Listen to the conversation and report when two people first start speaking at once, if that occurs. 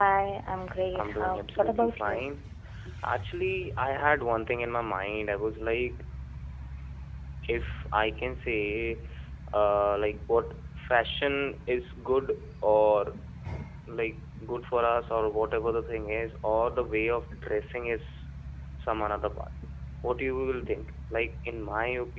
1.0 s

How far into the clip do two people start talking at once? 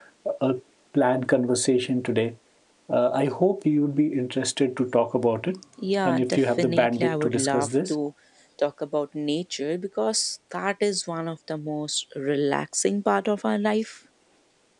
6.0 s

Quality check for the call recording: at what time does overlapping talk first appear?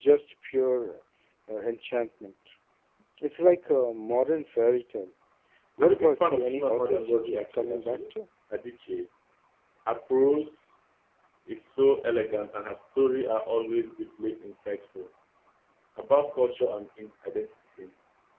5.8 s

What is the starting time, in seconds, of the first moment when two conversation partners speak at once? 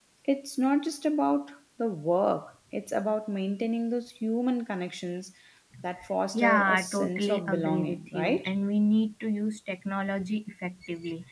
6.3 s

